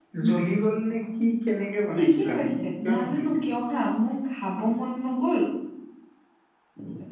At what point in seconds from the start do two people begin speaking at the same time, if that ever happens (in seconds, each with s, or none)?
1.9 s